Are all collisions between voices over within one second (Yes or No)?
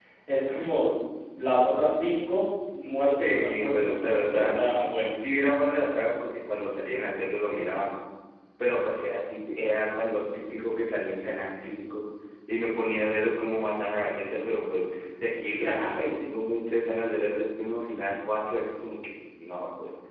No